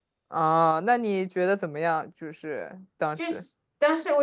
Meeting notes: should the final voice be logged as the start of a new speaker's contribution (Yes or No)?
Yes